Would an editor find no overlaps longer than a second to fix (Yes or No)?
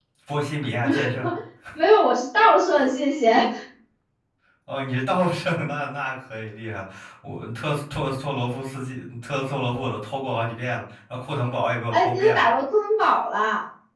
Yes